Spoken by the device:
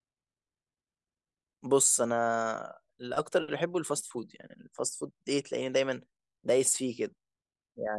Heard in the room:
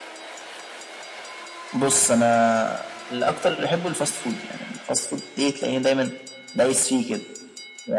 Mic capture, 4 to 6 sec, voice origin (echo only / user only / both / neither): echo only